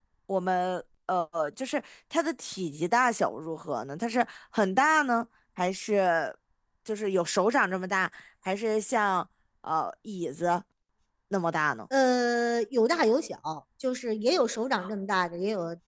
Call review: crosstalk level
none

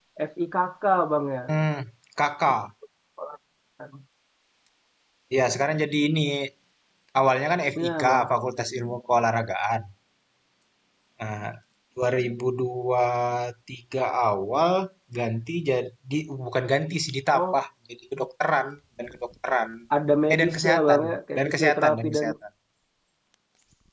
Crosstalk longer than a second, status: present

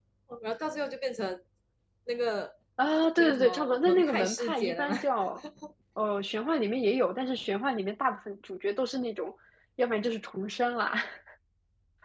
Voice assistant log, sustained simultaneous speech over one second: present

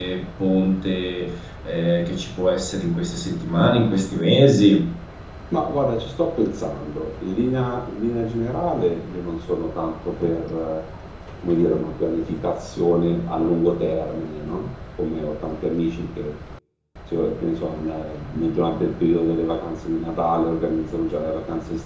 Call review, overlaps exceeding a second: none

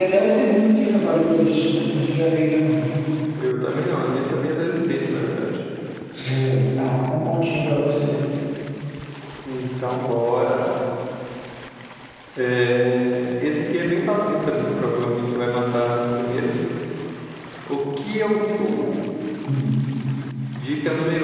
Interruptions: none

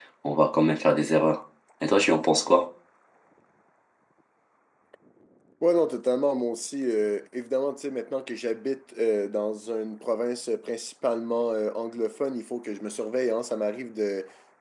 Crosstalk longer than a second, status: none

